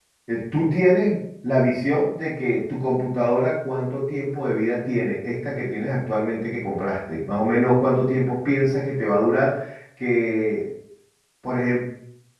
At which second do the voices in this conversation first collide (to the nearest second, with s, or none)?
none